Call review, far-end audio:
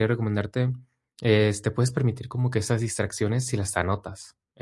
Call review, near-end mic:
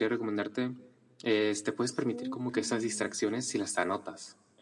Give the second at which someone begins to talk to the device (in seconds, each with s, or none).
2.0 s